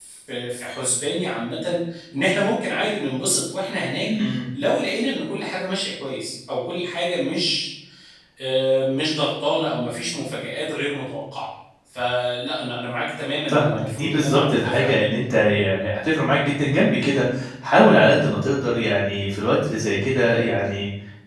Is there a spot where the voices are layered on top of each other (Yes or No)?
Yes